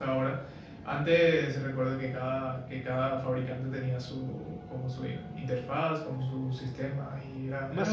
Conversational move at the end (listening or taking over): taking over